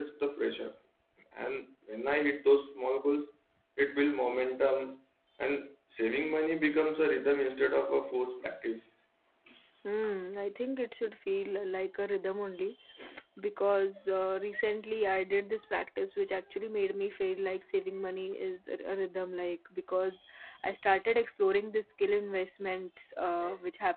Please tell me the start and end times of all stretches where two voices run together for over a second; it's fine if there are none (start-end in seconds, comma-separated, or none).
none